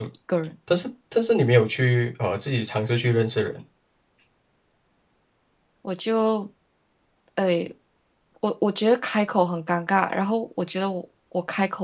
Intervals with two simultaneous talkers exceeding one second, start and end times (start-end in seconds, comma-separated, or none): none